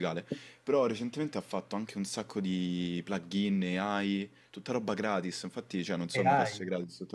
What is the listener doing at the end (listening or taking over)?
listening